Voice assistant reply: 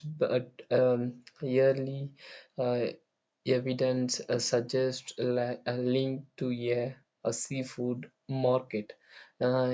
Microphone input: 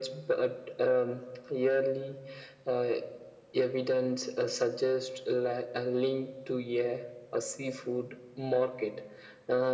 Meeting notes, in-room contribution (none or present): none